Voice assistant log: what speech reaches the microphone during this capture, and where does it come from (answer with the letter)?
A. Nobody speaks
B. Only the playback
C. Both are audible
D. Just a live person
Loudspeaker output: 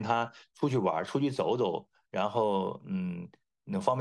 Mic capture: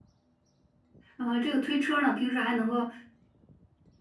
D